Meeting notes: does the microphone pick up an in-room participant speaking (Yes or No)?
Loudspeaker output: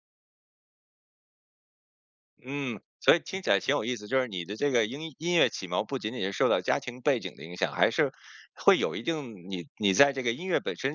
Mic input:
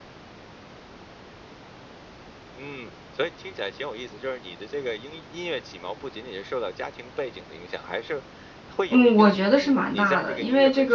Yes